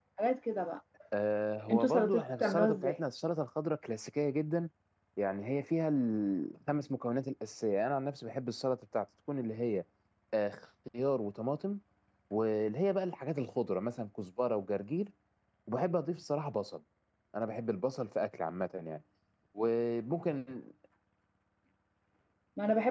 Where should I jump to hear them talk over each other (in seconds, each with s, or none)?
1.7 s